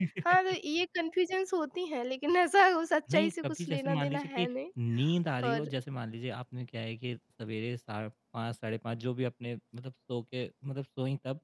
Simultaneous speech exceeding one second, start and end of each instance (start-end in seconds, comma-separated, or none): 3.1-4.5